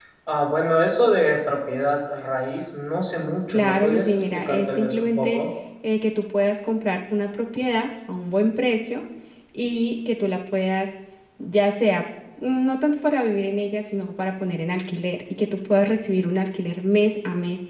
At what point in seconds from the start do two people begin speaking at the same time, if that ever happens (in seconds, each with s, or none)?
3.5 s